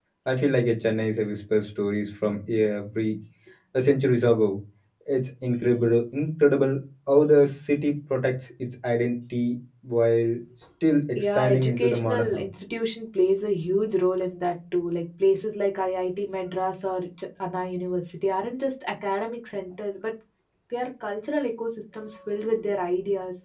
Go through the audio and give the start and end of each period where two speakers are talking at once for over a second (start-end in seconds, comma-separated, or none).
11.2-12.4